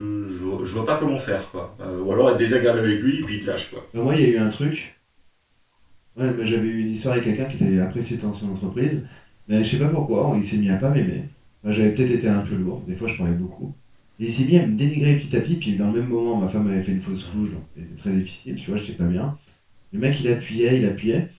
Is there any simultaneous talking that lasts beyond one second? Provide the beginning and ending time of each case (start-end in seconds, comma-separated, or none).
none